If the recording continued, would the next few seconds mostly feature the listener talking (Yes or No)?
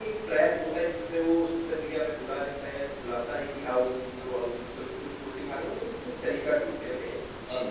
No